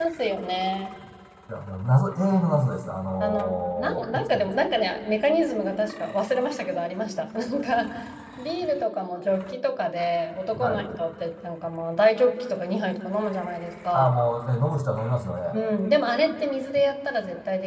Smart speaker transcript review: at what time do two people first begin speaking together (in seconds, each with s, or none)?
3.2 s